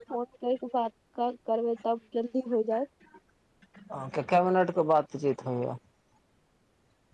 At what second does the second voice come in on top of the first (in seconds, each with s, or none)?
none